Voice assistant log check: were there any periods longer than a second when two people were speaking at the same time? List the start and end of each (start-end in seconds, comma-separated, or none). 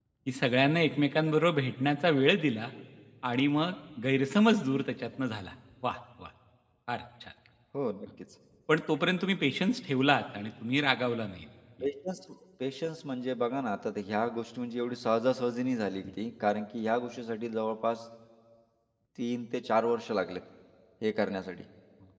none